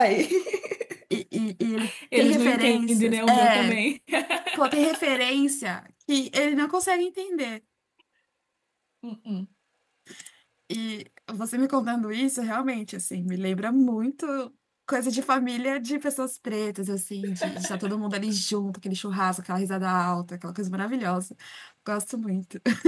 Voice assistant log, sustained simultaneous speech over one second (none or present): present